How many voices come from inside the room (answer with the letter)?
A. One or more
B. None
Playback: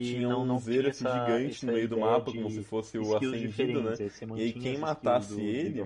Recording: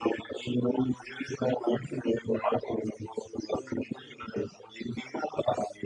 B